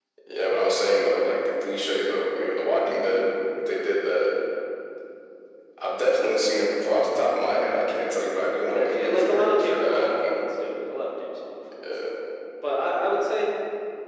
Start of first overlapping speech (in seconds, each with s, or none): 8.7 s